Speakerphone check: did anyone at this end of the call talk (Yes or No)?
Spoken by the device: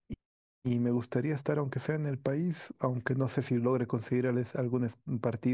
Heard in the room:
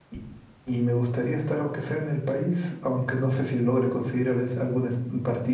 No